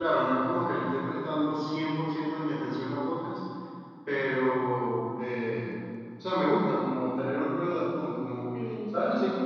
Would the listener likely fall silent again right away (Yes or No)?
Yes